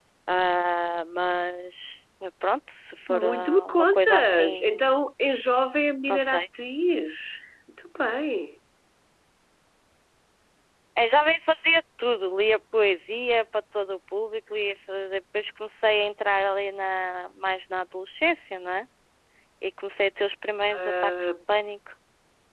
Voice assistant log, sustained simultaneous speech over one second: present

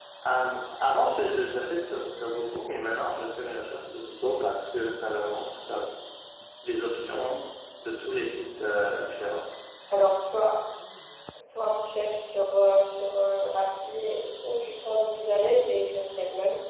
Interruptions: none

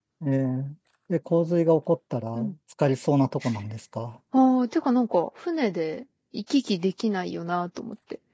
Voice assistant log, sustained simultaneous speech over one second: none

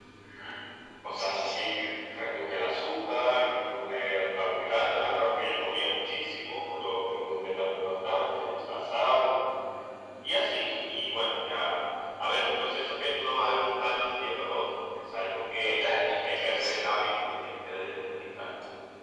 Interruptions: present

